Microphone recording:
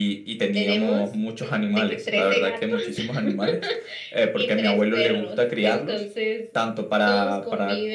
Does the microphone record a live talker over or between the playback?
No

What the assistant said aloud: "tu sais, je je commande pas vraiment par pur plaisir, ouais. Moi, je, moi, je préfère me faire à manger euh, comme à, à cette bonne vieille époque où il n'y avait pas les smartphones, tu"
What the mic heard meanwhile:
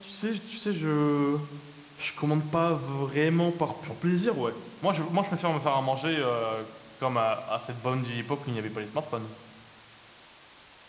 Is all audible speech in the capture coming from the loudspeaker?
Yes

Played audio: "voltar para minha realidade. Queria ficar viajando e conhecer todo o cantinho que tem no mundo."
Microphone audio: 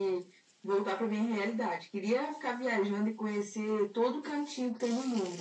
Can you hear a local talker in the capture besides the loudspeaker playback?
No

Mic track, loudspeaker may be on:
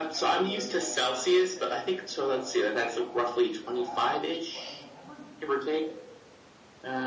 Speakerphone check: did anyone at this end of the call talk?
Yes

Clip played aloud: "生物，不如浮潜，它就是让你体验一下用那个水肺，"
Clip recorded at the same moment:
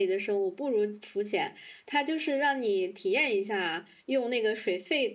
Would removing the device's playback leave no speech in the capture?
Yes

